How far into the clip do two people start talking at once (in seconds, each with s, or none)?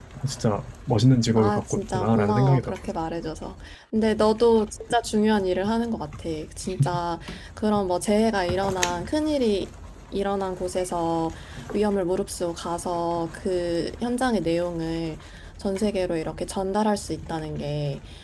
1.4 s